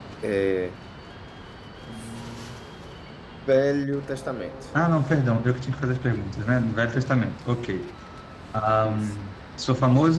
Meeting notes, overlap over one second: none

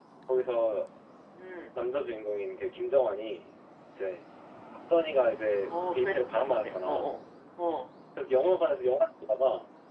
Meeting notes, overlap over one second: present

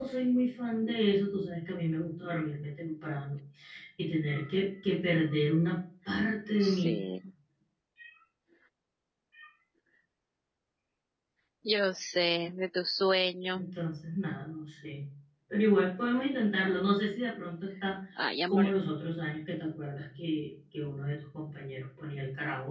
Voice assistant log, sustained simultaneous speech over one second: none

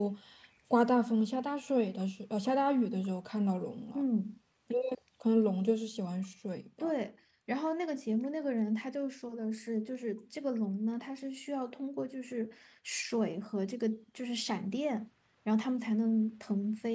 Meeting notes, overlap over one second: none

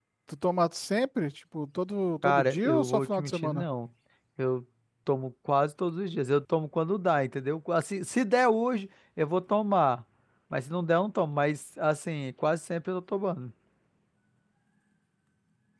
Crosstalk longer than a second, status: present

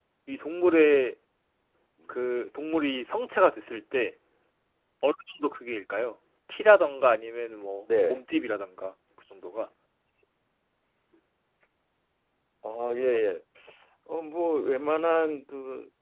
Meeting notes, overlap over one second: none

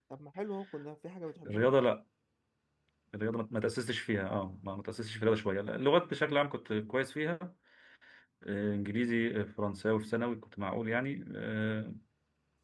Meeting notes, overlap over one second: none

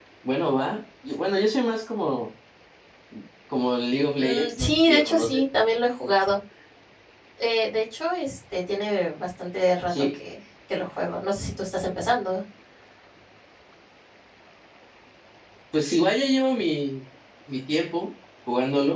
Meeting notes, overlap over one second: present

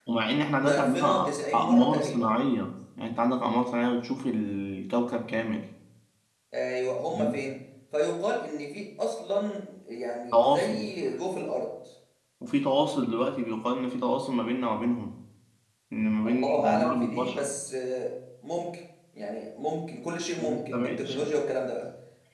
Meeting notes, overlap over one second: present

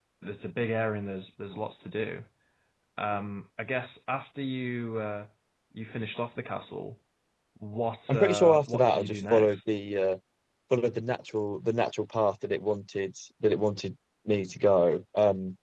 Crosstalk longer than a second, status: present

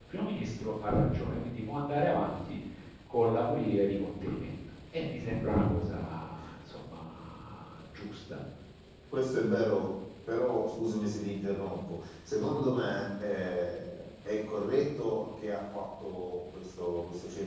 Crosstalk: none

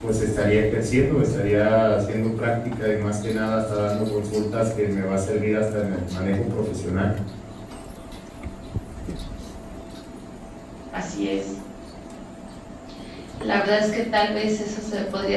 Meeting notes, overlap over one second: none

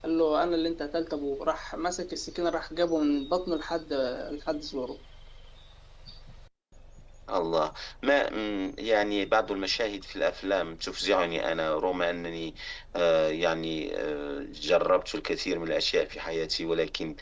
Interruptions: none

